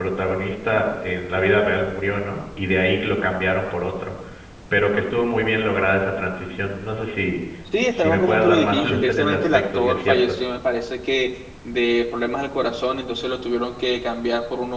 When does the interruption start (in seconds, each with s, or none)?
8.0 s